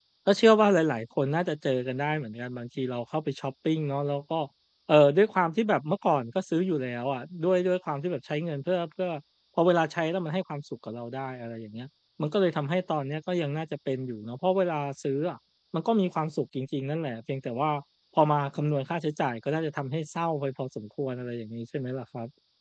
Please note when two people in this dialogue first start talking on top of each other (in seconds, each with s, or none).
none